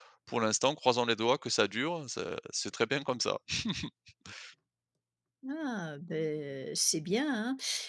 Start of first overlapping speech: none

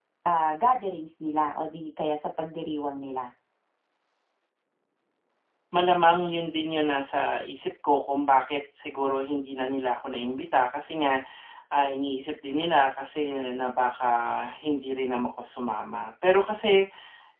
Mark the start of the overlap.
none

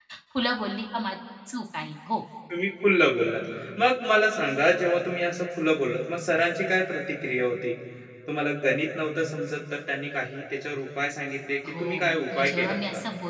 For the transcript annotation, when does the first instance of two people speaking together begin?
12 s

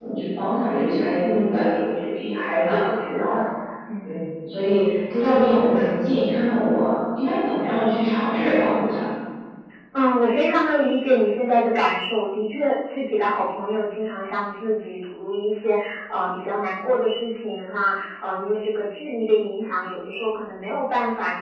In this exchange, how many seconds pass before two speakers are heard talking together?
2 s

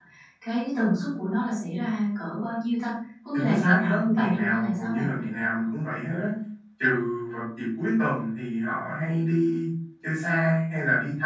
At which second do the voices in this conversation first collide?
3 s

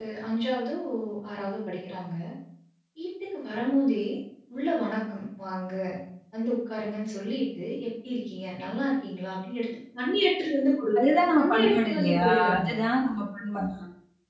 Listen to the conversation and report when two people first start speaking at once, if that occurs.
11 s

